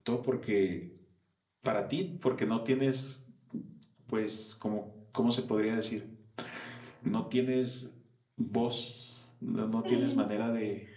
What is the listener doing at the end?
listening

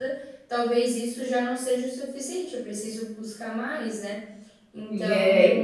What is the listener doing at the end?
taking over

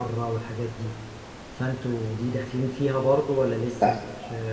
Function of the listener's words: taking over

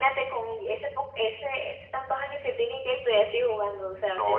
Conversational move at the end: taking over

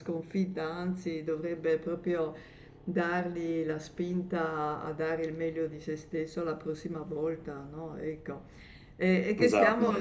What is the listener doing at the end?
listening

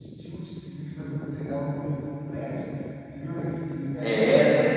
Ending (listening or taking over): taking over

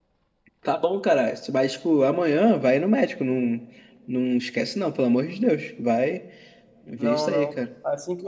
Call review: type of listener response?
taking over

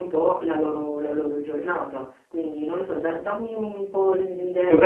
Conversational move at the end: taking over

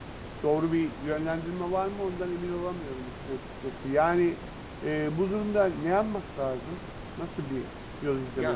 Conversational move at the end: taking over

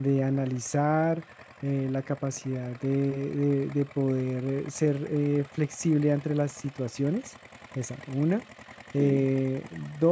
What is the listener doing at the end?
listening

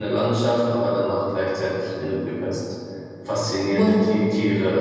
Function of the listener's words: listening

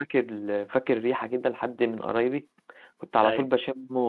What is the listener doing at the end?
listening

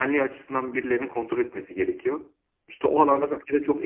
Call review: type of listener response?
listening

